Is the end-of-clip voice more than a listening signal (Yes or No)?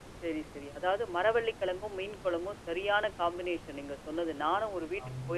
No